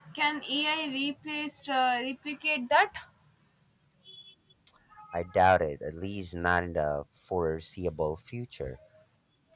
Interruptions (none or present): none